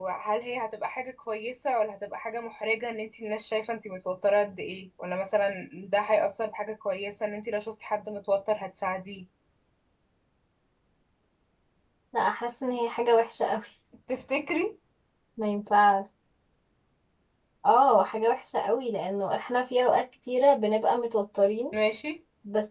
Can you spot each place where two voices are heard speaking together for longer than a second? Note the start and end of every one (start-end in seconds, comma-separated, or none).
none